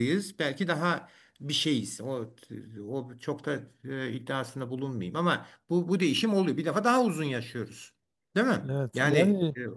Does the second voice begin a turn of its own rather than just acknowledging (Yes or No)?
Yes